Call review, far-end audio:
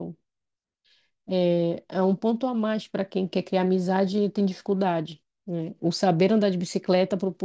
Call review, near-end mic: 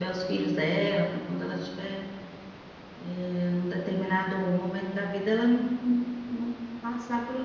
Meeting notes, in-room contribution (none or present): present